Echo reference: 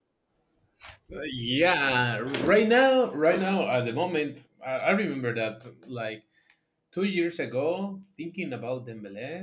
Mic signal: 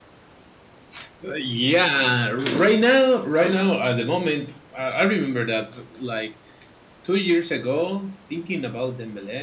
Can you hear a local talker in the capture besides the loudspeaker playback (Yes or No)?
No